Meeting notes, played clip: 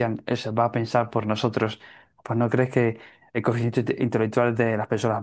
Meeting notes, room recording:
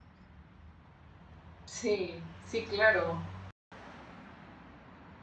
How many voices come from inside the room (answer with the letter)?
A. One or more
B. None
A